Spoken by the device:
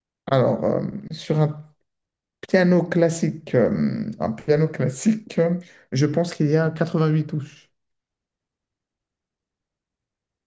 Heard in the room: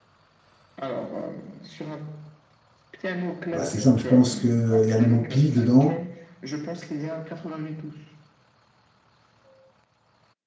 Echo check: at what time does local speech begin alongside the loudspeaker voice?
3.5 s

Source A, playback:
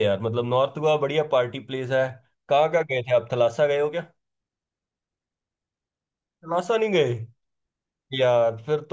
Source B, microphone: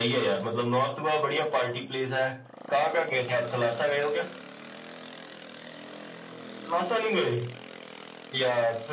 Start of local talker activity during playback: none

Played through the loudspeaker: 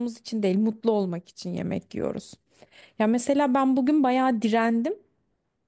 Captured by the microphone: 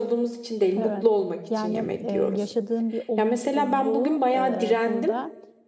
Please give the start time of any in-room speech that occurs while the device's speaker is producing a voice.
0.8 s

